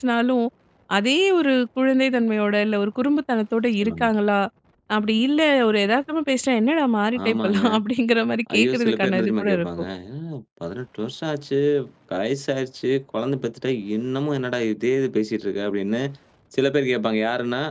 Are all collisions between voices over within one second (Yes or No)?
No